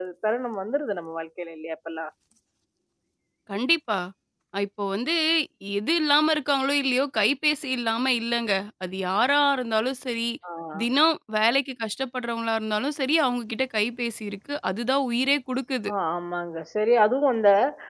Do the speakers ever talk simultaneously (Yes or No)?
No